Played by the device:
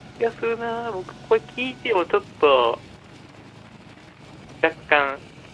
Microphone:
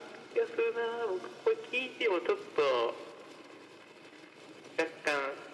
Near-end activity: none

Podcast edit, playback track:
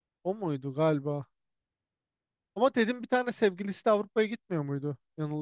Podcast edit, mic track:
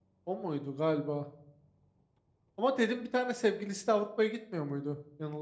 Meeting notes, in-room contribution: none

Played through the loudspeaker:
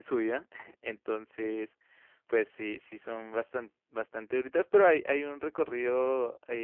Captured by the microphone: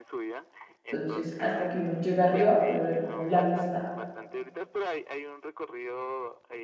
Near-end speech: present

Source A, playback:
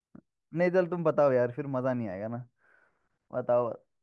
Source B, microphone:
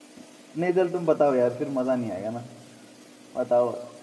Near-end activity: none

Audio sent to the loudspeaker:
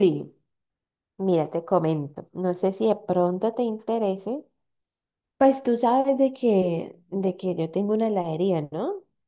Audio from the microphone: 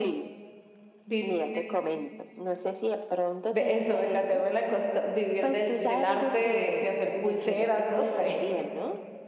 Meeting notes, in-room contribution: present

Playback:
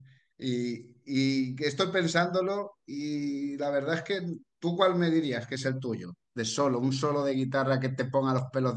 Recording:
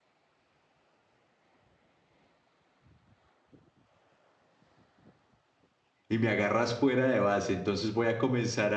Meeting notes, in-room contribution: present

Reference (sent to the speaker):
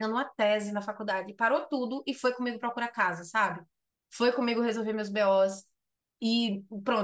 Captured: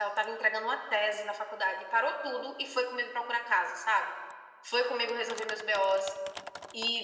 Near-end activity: none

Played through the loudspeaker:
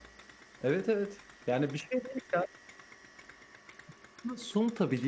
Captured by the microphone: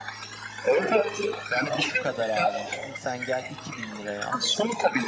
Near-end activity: present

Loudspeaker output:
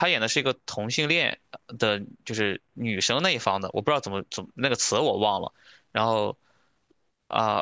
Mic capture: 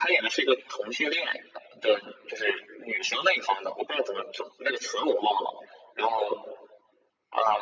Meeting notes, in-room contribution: none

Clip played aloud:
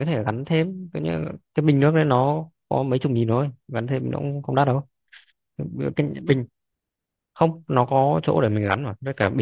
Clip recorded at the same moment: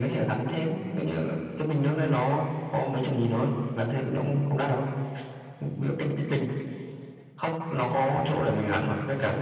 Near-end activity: none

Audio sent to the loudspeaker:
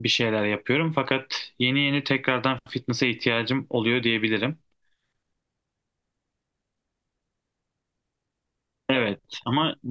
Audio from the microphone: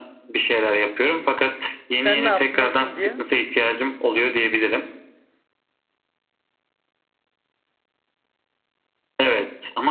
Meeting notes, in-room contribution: present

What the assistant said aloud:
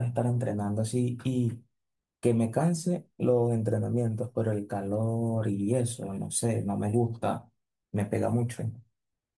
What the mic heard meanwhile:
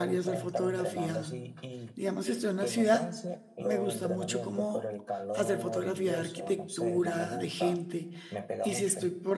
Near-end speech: present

